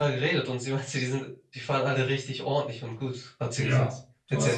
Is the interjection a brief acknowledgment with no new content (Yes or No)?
No